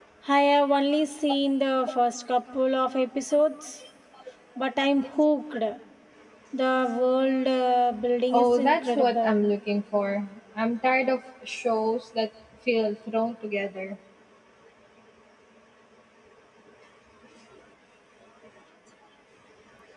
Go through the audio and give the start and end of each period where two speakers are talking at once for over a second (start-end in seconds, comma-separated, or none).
8.3-9.5